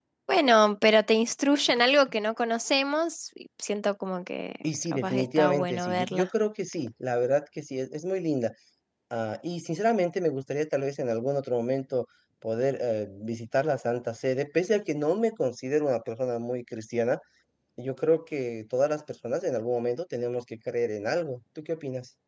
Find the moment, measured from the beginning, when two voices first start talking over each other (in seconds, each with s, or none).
4.9 s